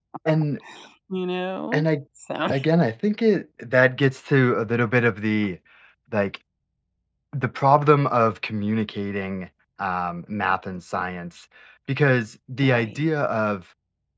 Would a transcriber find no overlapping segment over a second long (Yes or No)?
Yes